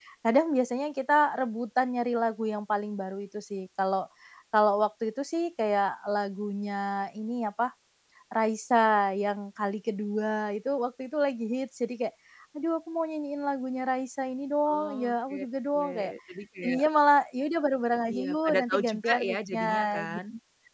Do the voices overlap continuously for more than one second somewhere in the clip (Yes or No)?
Yes